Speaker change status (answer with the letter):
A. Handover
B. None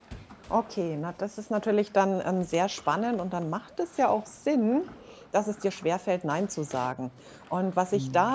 B